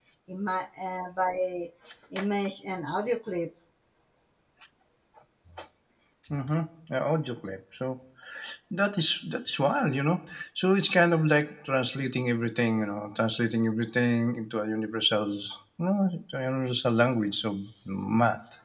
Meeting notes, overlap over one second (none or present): none